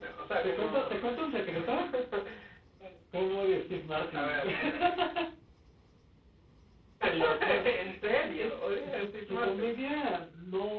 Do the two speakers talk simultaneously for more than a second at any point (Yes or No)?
Yes